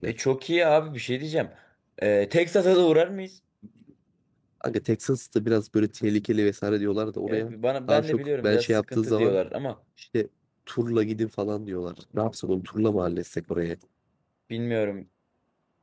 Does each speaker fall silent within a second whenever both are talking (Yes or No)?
No